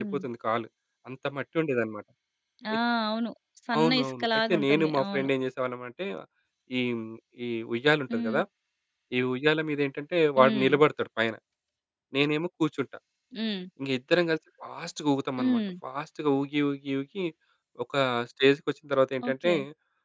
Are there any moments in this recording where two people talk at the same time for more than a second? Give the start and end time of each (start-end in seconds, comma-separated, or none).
3.8-5.3